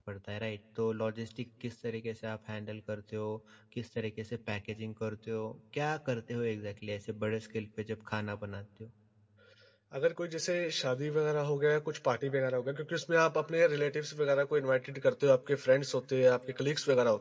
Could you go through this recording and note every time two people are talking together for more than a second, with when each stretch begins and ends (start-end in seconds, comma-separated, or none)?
none